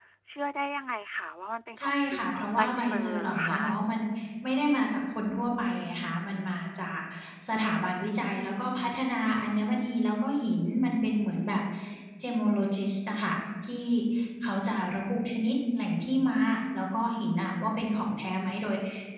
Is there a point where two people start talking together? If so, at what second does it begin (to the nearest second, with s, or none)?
2 s